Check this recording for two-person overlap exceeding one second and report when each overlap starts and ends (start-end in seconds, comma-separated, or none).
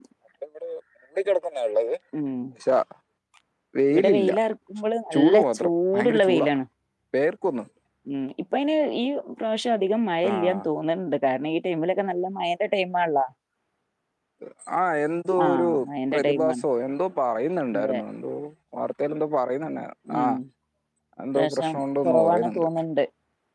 5.1-6.5, 21.4-22.7